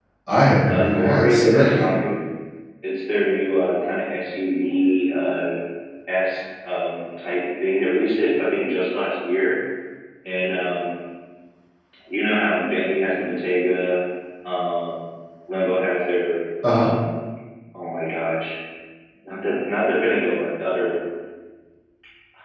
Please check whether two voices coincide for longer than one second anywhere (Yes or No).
Yes